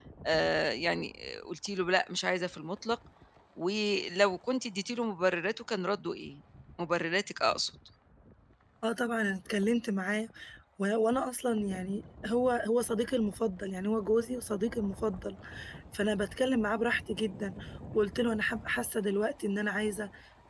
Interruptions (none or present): none